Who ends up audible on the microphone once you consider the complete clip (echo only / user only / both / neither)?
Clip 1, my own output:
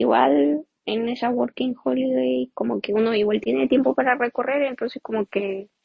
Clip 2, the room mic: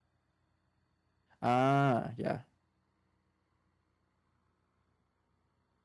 user only